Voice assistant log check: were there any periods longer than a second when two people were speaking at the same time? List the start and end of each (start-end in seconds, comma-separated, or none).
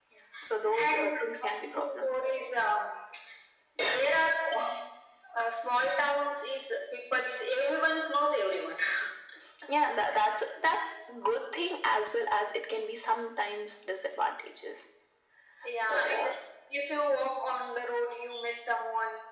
0.6-2.1